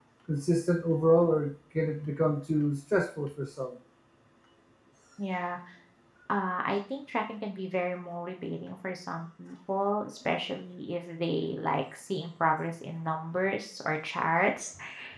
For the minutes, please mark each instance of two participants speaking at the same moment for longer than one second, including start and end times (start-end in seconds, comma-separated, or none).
none